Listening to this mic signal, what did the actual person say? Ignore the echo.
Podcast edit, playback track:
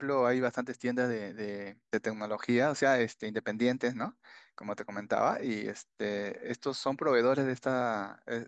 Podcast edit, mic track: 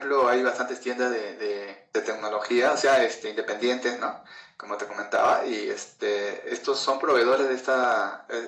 none

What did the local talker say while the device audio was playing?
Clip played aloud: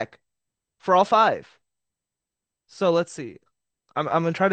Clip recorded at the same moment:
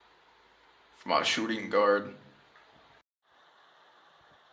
For my shooting guard,

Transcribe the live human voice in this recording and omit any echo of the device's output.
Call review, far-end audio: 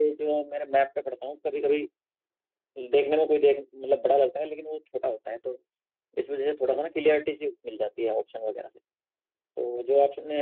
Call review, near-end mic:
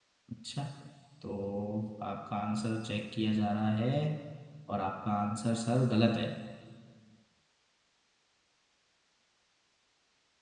अच्छा तो आपका आंसर चेक किया जा रहा है और आपका आंसर सर गलत है

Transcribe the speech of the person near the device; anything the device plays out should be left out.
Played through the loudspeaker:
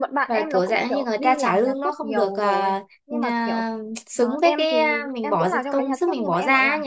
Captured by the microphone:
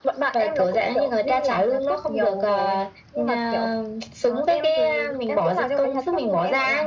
none

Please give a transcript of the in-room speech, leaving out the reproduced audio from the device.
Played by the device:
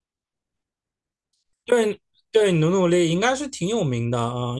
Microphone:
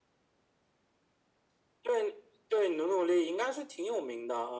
none

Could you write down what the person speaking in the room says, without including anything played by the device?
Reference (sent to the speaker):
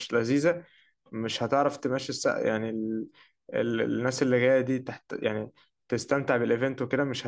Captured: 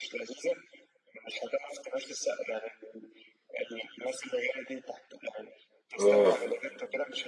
اه

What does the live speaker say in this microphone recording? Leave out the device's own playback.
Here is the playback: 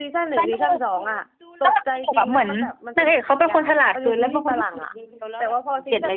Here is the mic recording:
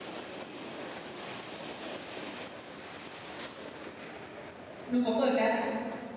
หนูขอเปิดแป๊บ

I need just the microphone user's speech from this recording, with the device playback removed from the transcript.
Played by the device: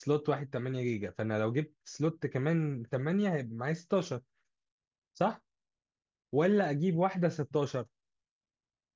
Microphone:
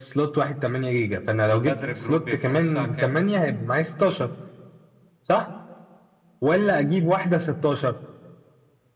البدر جروب بيفتحوا الساعة كام

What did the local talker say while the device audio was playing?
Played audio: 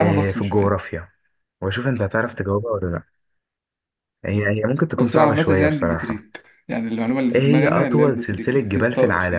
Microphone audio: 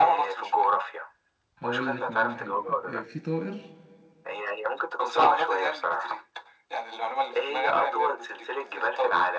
هقول لك معلومة حلوة آه، في طائر

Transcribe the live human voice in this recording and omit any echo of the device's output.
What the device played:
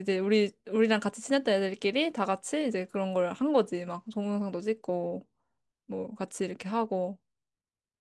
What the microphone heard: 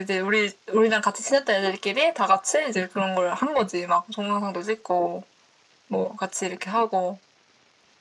none

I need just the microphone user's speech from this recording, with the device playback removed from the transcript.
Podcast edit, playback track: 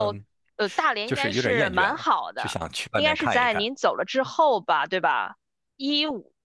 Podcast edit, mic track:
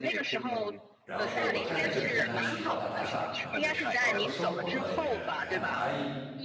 然后我太太在中山区万达大厦，然后是要说生活呢也也还蛮安逸，

